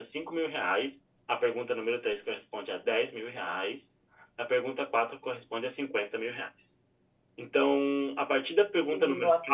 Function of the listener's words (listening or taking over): listening